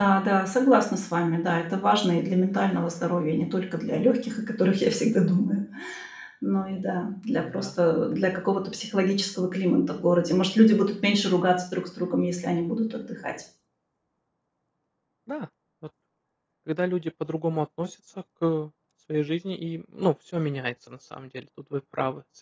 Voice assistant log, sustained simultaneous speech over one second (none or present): none